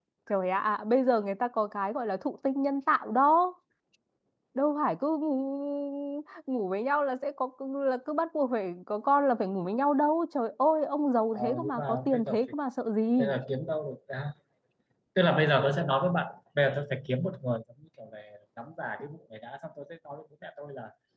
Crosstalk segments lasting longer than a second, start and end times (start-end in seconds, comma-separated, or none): 11.3-12.5